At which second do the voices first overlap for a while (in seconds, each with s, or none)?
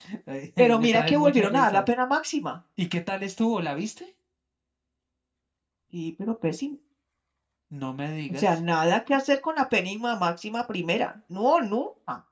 0.6 s